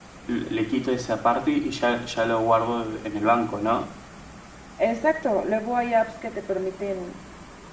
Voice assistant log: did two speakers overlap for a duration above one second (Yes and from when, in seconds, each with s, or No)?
No